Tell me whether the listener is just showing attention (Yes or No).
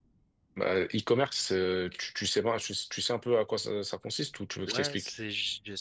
No